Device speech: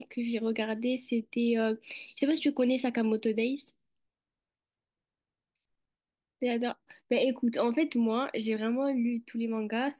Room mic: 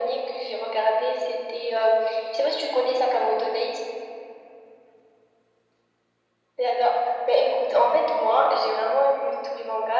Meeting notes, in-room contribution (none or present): none